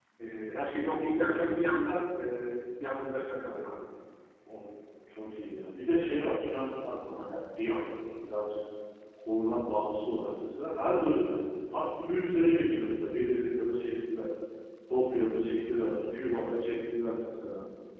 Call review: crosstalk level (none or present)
none